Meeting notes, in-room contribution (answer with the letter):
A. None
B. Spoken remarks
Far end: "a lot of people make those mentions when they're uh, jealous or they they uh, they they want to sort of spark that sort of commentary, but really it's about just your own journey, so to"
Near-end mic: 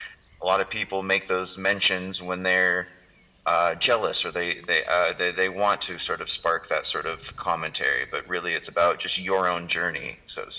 A